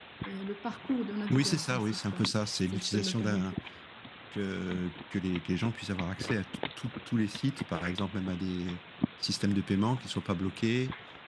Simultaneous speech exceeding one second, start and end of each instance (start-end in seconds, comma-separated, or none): 1.3-3.5